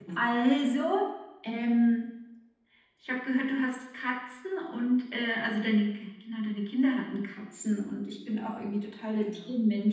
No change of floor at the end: Yes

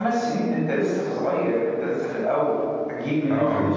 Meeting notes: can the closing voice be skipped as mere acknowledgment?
Yes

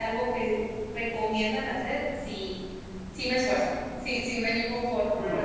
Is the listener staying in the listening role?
No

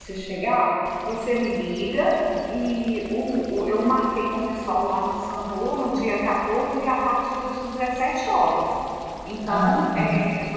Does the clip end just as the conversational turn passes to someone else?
No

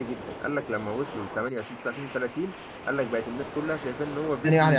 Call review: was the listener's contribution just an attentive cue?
No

